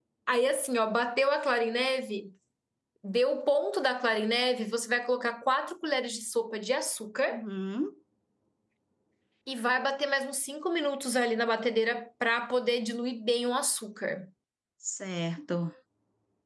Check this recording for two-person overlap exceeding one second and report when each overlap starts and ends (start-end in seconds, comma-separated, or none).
none